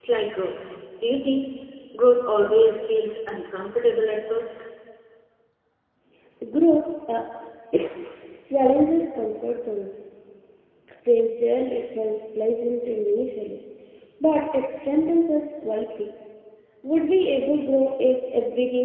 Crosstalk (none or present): none